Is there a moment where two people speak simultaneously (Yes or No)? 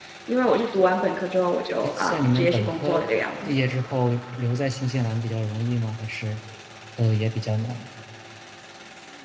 Yes